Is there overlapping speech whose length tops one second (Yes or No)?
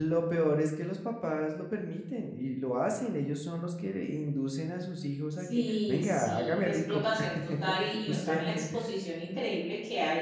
Yes